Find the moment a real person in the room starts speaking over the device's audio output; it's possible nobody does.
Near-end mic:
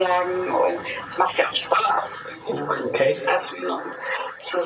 2 s

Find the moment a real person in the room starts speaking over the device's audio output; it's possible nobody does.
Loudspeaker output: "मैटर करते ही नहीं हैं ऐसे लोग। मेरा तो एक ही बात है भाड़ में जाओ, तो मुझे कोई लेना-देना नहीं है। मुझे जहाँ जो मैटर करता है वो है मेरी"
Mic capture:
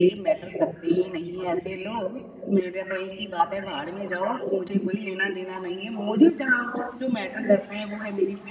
none

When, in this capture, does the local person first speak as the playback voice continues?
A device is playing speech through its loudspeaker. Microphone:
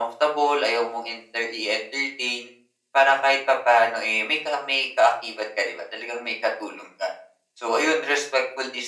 none

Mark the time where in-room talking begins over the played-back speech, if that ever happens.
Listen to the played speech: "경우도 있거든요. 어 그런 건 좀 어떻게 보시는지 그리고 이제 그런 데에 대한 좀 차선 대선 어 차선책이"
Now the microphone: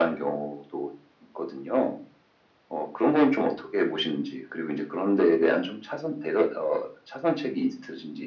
none

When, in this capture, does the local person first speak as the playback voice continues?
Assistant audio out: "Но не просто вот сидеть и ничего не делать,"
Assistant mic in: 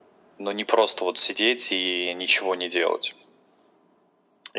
none

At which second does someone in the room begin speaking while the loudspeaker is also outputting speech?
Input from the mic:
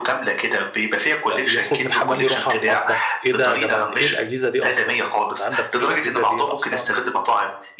1 s

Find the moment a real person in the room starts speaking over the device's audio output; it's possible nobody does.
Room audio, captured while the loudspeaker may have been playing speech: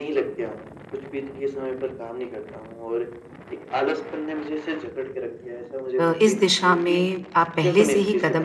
6 s

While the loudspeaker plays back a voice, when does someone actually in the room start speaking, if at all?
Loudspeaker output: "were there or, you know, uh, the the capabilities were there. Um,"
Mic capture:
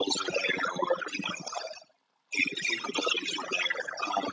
none

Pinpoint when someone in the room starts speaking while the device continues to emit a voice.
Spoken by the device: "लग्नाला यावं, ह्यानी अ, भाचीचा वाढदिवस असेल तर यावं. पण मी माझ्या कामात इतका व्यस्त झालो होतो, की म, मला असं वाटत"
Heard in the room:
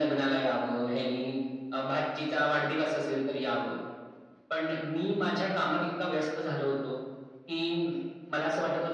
none

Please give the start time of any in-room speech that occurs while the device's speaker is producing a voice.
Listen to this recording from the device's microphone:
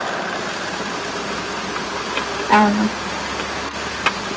3 s

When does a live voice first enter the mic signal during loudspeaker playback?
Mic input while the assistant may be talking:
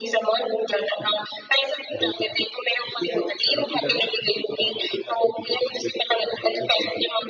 none

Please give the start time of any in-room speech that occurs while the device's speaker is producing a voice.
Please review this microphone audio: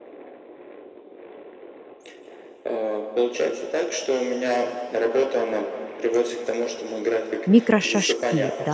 7 s

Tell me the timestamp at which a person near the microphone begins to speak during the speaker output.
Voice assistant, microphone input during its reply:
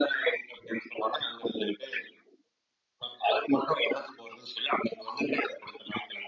none

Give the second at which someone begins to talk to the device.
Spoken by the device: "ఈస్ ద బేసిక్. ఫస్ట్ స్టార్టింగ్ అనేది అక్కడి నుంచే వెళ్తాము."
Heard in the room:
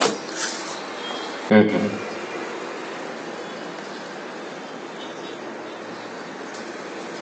2 s

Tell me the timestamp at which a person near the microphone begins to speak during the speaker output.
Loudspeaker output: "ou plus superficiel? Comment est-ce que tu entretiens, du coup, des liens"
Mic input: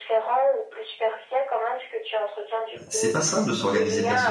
3 s

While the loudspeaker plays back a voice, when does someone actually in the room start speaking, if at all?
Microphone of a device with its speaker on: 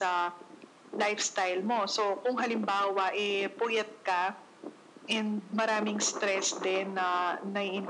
none

